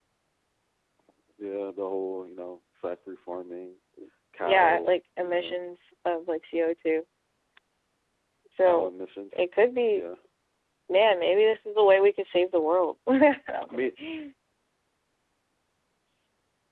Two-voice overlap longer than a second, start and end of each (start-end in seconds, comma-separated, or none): 4.4-5.7